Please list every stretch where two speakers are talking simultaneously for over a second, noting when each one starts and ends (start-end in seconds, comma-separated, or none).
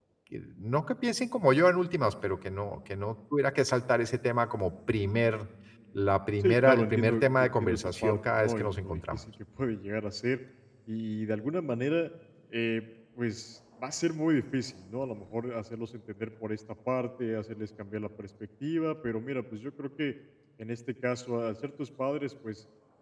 6.4-9.2